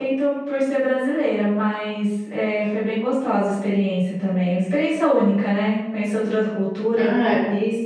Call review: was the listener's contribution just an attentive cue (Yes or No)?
No